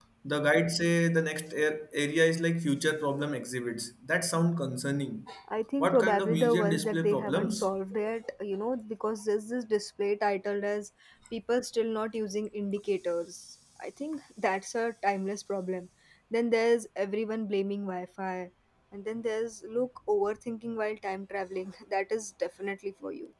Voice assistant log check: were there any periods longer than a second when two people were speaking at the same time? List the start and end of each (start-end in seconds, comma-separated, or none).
5.8-7.7